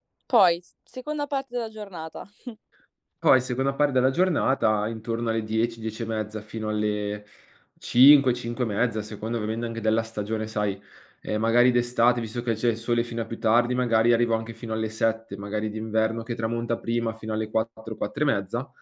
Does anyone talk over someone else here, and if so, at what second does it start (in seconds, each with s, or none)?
none